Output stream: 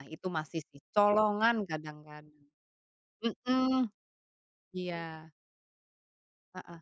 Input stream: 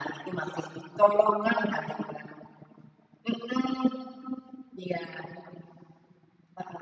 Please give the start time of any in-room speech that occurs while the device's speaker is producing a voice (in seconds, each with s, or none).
none